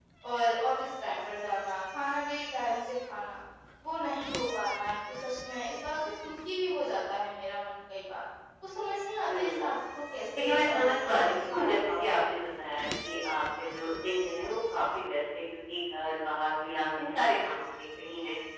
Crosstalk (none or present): present